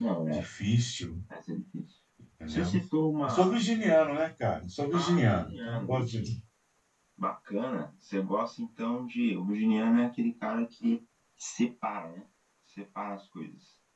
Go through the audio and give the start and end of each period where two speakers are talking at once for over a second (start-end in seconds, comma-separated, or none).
4.9-6.2